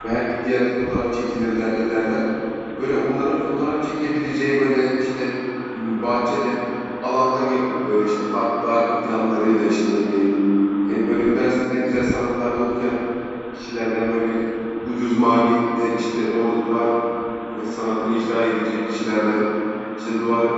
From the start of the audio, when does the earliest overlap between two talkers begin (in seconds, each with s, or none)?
none